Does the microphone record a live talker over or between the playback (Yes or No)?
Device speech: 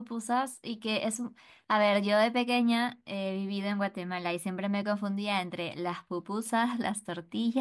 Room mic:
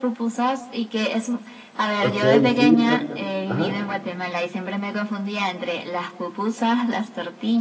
Yes